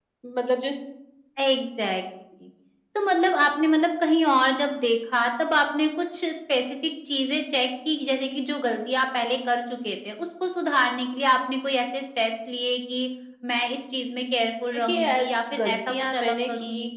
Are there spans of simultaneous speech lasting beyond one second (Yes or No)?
Yes